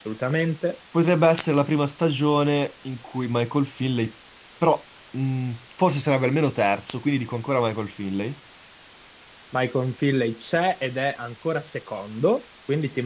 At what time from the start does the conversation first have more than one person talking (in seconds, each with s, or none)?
none